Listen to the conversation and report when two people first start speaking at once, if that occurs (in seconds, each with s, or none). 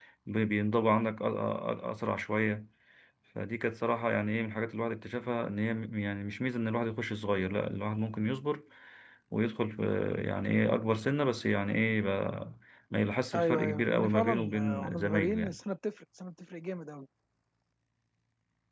13.3 s